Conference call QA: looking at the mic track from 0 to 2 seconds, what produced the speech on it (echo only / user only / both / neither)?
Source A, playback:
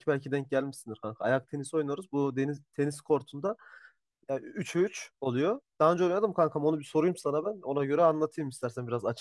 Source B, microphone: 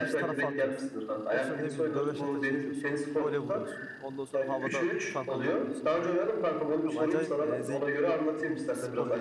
both